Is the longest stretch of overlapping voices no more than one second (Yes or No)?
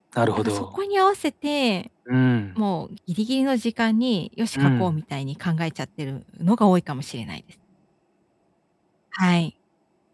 Yes